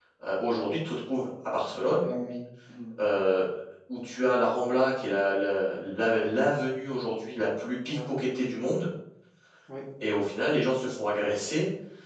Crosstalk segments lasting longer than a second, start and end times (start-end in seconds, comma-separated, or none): none